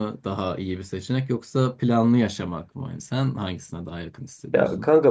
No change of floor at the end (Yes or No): No